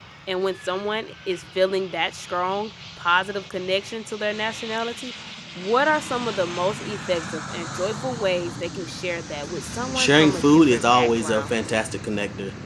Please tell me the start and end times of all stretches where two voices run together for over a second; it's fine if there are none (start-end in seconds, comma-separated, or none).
9.9-11.5